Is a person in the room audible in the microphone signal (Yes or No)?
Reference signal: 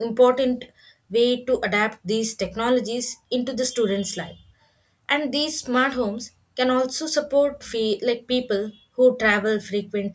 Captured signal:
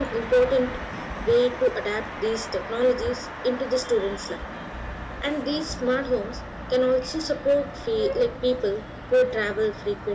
No